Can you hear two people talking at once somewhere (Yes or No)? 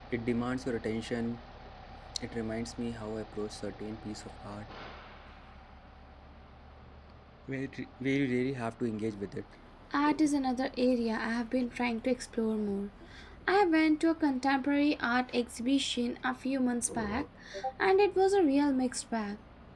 No